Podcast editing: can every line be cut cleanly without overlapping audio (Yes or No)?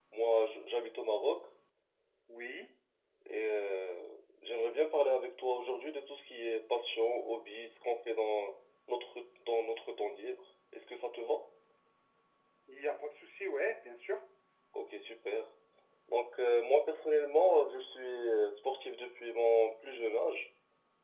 Yes